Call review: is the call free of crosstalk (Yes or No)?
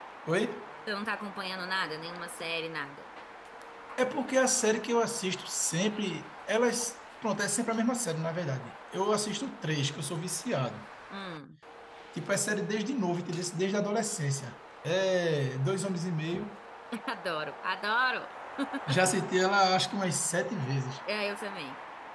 Yes